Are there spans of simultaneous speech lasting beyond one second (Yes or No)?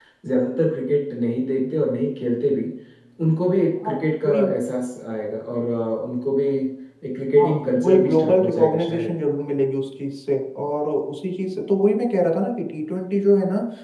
Yes